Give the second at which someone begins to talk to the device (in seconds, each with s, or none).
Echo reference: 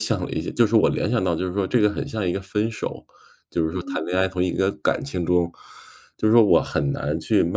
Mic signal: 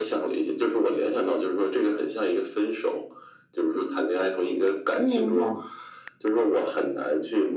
5.0 s